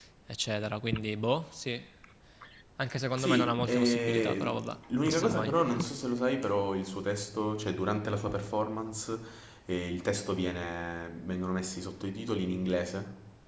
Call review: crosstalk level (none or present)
present